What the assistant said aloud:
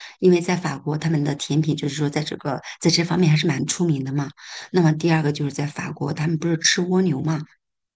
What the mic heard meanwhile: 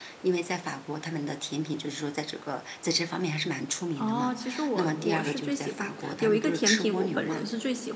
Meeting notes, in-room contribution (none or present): present